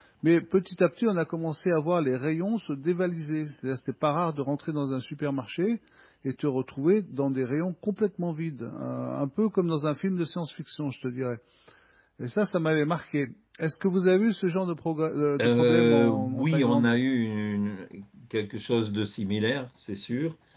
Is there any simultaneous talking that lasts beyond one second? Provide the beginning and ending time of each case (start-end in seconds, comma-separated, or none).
15.4-17.0